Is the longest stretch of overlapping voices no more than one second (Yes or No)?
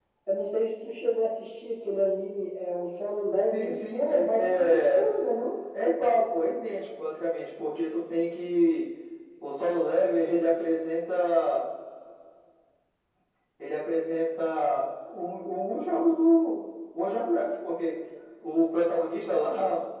No